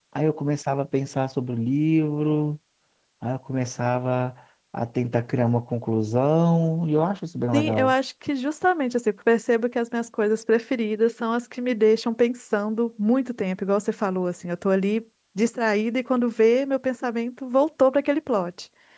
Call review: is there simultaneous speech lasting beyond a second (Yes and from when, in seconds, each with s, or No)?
No